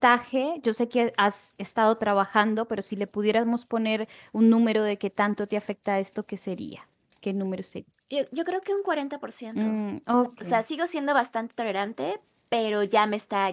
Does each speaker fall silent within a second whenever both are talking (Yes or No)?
Yes